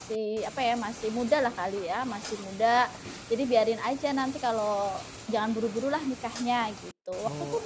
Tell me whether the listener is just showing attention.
No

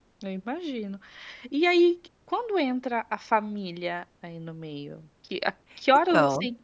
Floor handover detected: No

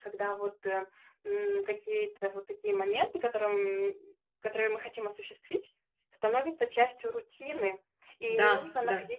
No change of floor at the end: Yes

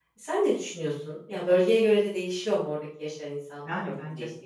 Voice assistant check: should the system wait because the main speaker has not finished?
No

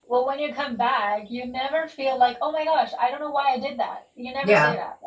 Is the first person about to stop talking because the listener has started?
Yes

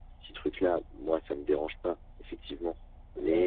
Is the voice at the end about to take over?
No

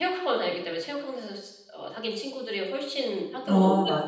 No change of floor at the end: No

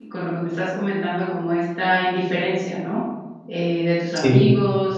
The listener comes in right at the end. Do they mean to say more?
No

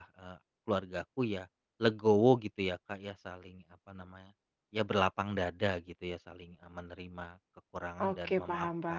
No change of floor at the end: No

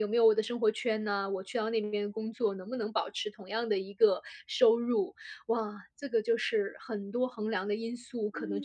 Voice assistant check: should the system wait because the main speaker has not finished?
No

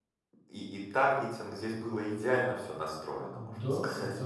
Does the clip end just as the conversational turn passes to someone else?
Yes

